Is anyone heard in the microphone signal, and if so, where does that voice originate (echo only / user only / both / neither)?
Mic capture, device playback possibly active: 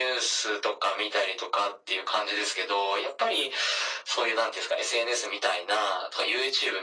echo only